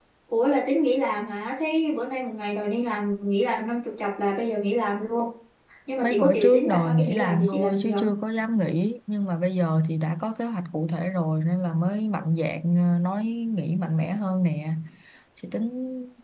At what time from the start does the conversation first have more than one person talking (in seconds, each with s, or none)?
6.0 s